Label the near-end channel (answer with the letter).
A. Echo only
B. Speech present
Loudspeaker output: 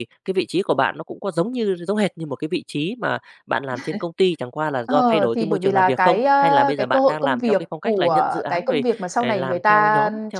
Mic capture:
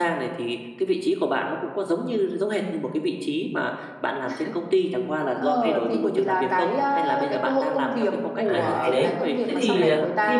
B